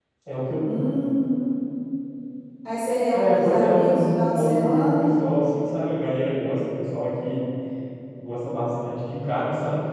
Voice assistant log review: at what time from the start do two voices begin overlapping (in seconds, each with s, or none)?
3.1 s